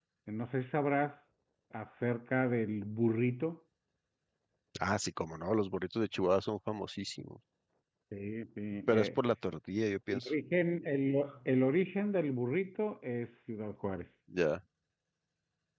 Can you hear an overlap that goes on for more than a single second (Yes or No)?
No